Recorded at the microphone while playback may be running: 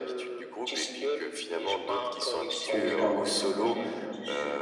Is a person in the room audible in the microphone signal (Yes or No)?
Yes